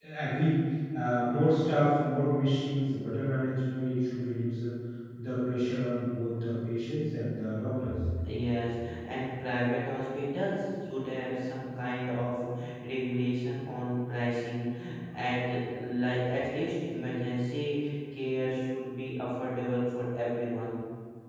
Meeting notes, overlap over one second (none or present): none